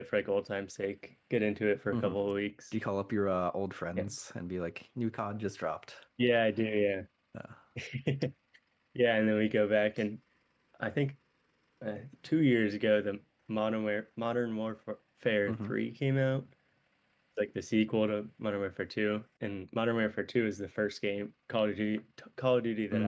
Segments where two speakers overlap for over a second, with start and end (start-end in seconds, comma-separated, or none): none